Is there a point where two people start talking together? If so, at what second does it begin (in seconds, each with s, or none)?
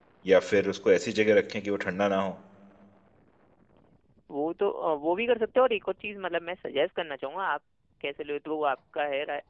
none